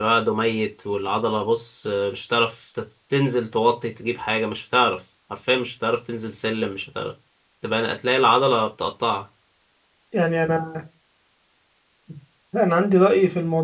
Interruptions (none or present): none